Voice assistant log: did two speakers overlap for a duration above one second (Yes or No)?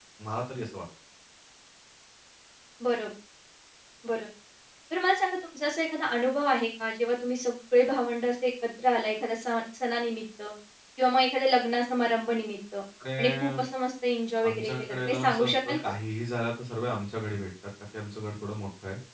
Yes